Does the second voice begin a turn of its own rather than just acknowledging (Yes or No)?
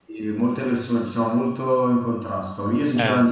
No